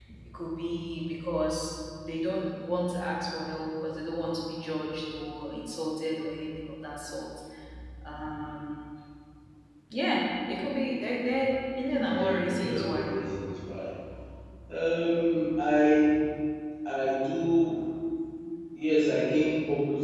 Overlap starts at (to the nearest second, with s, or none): 12 s